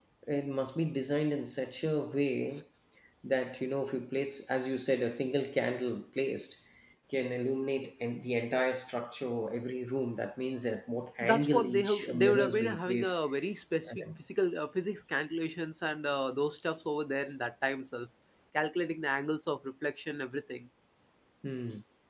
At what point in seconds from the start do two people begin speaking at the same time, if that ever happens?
11.3 s

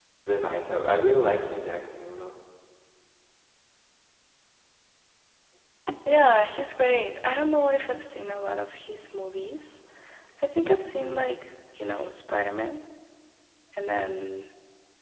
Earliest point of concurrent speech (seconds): none

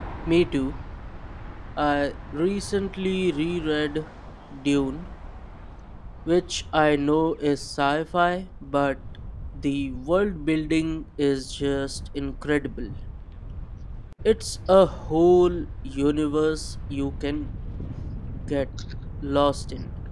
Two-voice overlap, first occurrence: none

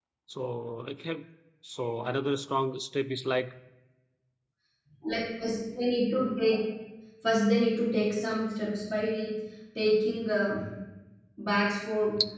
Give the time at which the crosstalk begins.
none

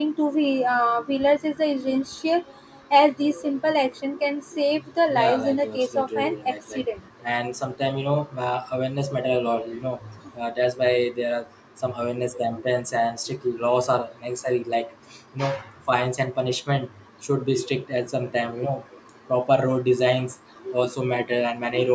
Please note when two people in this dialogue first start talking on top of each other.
5.1 s

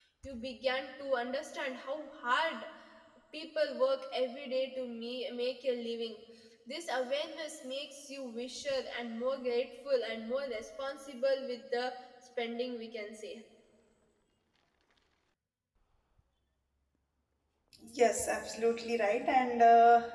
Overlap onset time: none

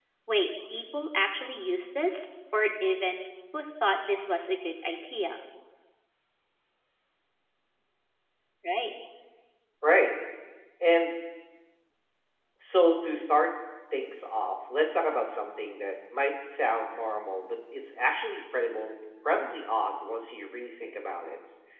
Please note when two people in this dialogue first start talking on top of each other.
none

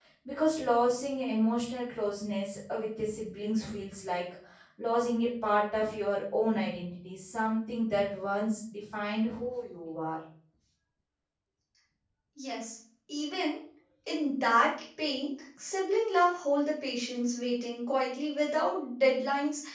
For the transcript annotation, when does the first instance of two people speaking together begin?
none

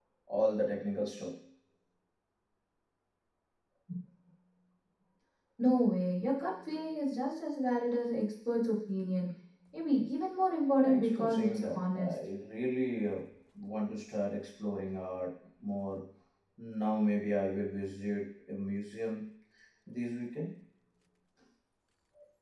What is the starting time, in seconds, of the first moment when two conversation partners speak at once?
10.8 s

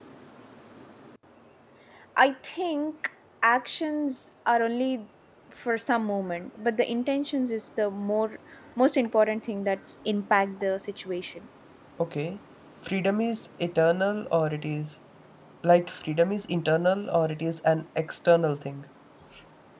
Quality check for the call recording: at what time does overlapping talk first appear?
none

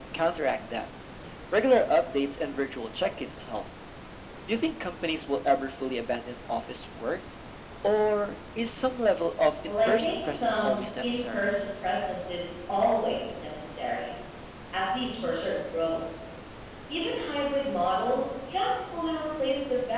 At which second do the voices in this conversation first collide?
9.6 s

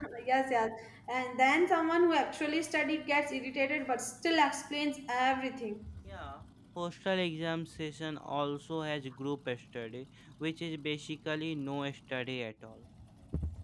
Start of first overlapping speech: none

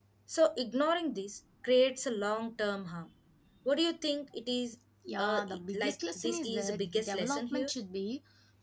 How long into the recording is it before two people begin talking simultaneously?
5.2 s

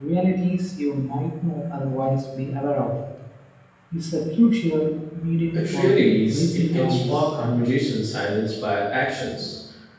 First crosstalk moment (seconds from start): 5.5 s

